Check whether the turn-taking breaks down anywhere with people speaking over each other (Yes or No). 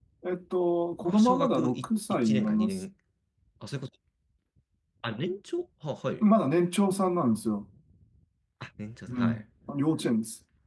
Yes